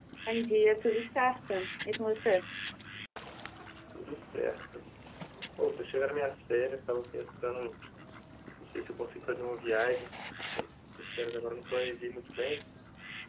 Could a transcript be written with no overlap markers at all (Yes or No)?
Yes